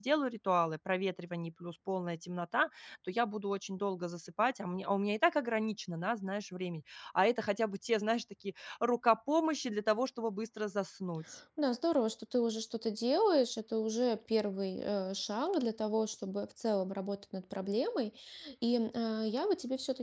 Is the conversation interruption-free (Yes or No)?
Yes